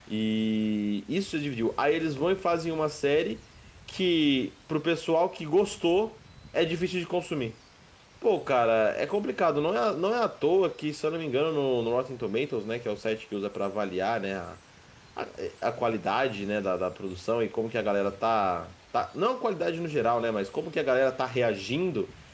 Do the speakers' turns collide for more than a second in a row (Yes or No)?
No